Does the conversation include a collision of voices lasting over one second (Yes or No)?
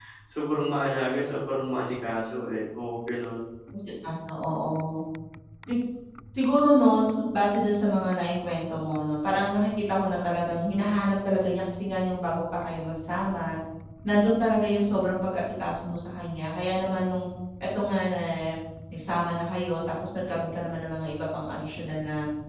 No